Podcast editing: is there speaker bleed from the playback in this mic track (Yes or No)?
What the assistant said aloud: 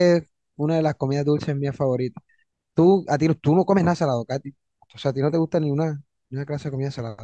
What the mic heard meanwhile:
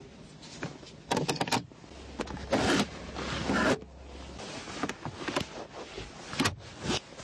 No